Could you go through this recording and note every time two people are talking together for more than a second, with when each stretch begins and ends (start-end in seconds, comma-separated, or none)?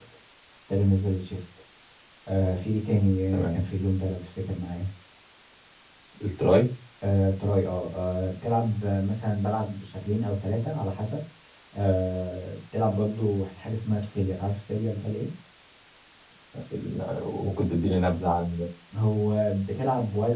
none